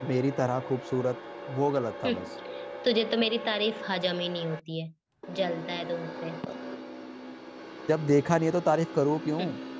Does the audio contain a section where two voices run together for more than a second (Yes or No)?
No